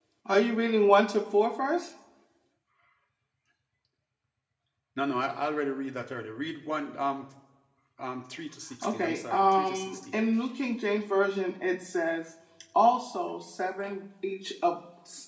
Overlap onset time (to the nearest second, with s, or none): 9 s